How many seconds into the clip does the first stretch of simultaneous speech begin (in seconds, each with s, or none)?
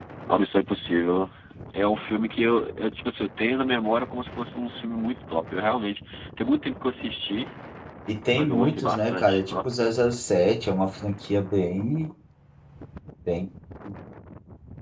8.3 s